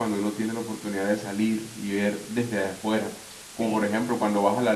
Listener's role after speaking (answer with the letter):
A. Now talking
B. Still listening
B